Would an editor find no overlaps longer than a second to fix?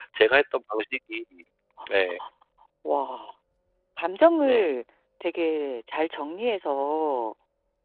Yes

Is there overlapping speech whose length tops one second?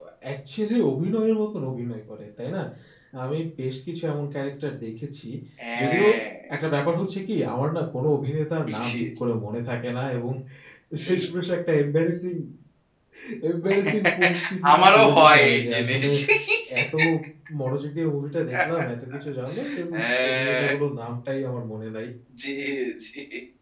Yes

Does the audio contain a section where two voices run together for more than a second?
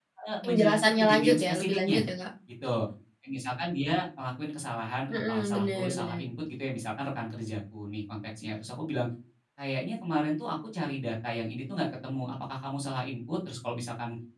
Yes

